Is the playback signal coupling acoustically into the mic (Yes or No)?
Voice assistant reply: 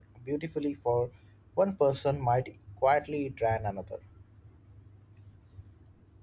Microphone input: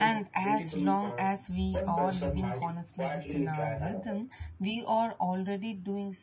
Yes